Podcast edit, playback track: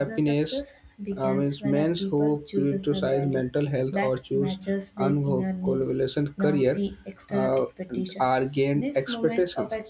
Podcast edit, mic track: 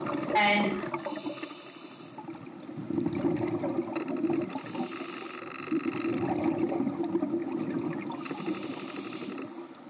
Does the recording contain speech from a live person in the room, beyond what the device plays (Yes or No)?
Yes